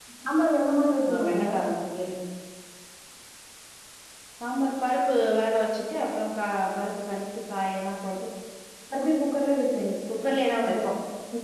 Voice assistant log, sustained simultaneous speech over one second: none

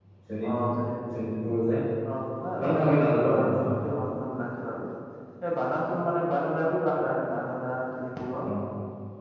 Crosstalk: present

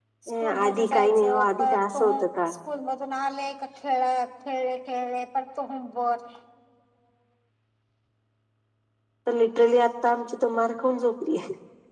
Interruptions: present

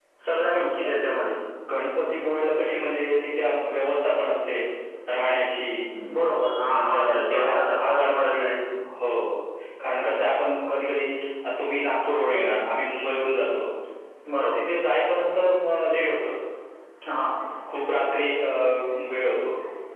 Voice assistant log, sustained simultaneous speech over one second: present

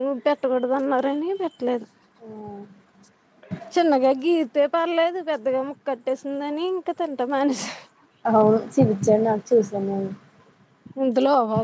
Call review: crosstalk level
none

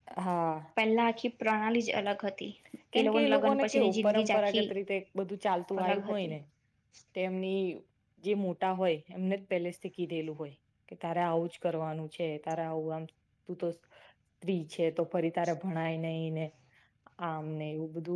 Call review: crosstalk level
present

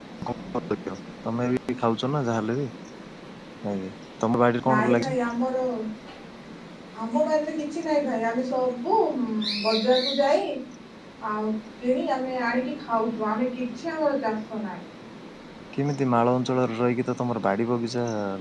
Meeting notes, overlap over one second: none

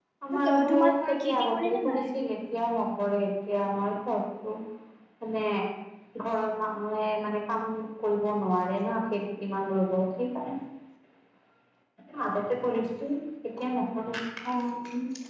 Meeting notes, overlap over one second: present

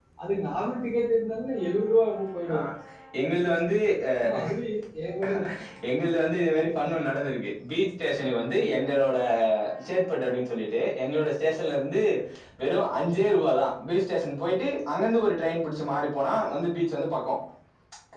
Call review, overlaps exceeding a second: none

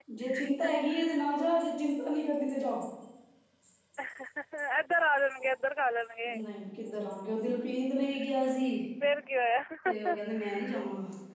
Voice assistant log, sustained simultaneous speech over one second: none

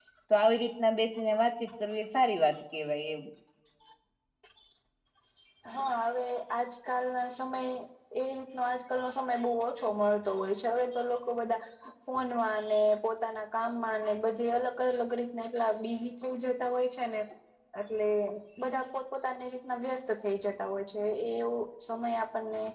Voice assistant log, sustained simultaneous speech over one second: none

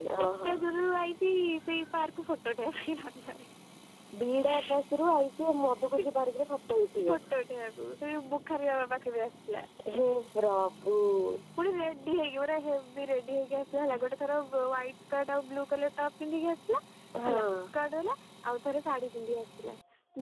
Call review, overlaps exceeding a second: none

